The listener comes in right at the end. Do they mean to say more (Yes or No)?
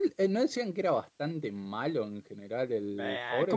Yes